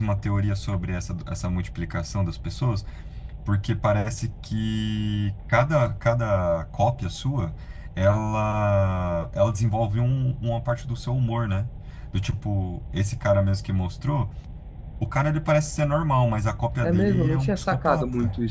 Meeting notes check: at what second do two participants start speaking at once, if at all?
17 s

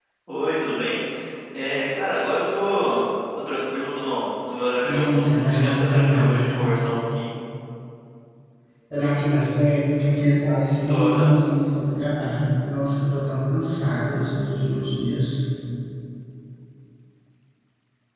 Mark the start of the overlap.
5 s

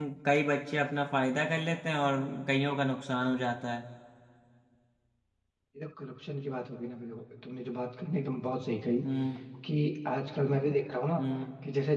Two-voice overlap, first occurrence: none

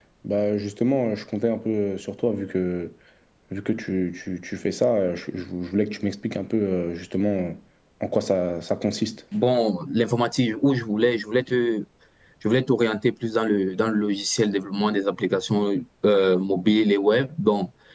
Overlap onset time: none

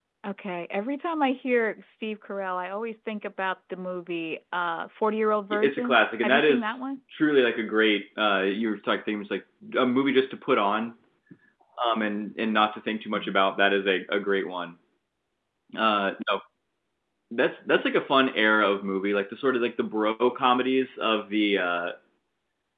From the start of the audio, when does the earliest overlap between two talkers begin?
6 s

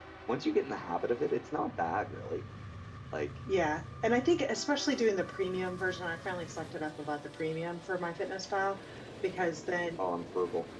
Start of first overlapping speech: none

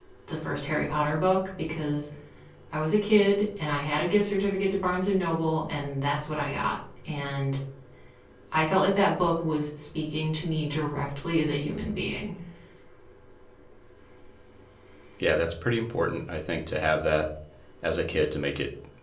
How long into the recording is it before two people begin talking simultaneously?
none

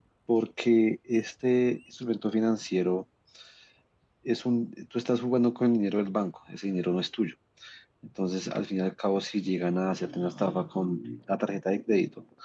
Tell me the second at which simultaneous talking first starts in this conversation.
none

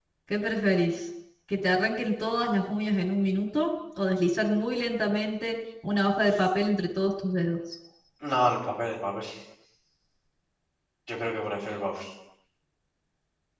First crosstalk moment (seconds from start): none

